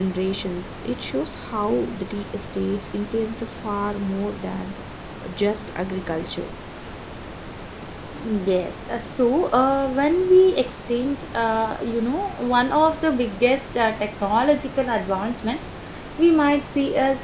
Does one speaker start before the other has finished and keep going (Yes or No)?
No